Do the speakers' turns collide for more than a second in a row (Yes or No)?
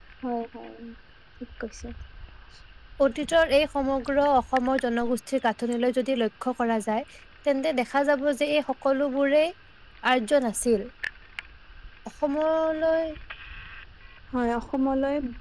No